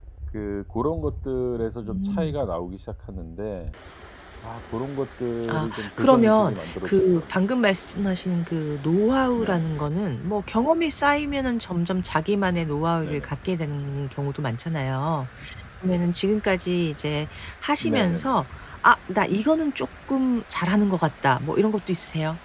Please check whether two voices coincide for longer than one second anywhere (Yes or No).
Yes